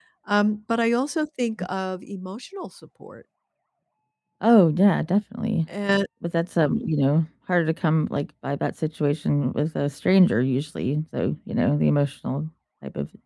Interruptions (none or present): none